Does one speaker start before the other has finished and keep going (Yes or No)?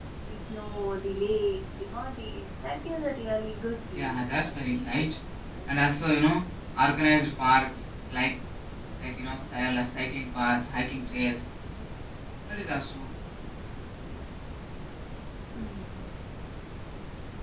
Yes